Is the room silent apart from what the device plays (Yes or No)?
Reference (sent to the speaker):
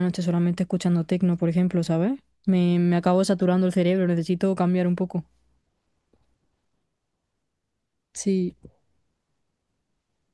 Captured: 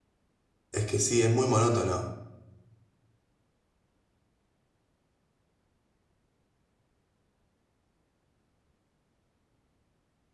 No